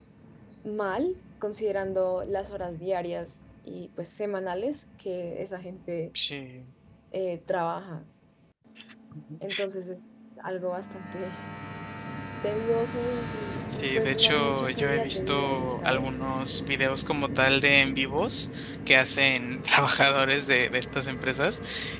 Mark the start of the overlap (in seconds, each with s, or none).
13.7 s